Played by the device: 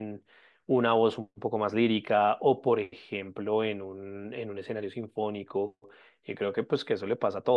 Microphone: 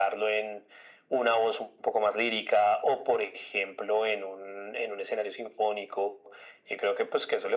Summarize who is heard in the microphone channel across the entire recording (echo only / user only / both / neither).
echo only